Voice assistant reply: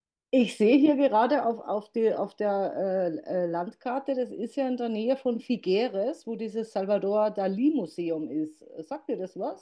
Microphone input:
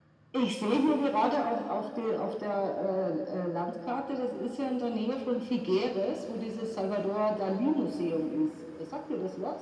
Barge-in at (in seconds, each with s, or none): none